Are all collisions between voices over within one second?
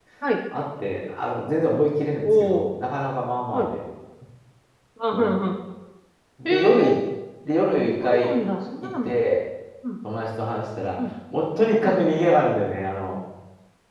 Yes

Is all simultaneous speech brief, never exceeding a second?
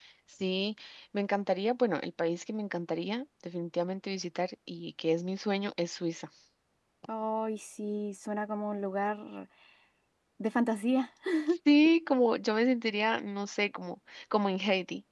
Yes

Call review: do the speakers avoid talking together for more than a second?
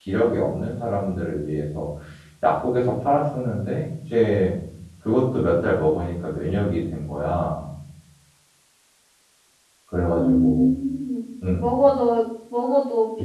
Yes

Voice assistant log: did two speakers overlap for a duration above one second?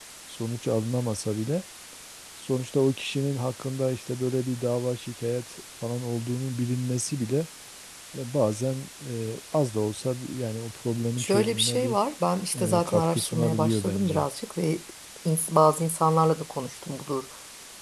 Yes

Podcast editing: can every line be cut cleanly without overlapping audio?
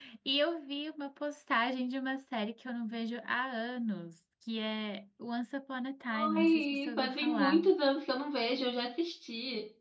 No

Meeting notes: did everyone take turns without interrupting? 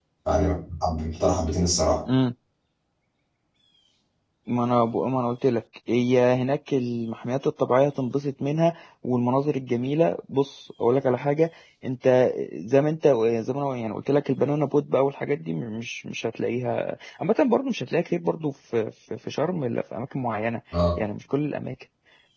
Yes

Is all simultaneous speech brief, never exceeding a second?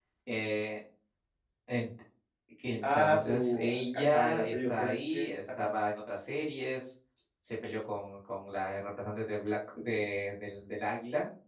No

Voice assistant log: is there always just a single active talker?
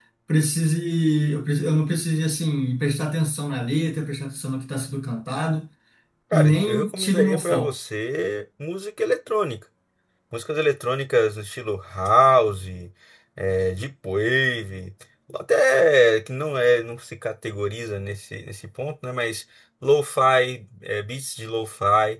No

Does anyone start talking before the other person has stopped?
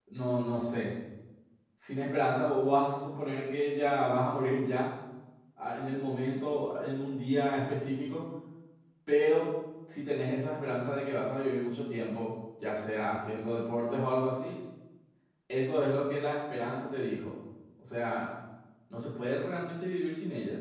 No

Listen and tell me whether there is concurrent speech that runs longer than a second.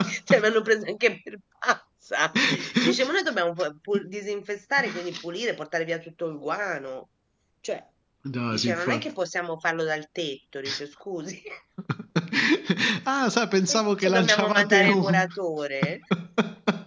Yes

